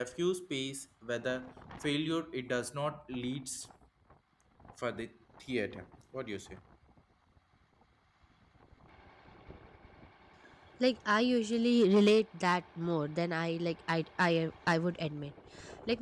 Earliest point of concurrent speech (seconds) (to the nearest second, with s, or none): none